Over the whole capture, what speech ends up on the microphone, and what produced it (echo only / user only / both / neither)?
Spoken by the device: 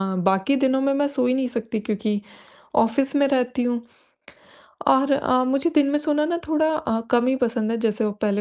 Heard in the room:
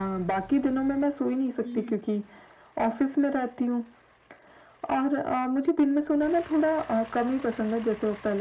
both